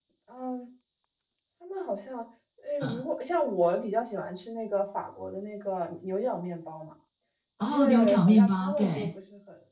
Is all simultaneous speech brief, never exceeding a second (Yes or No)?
No